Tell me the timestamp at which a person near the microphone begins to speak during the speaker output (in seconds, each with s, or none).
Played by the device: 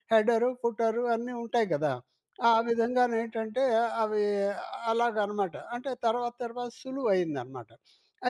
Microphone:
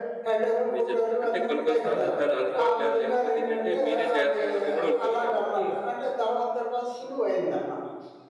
0.7 s